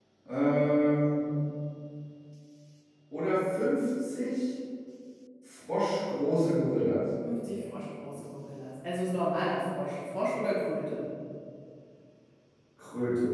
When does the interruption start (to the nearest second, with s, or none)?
none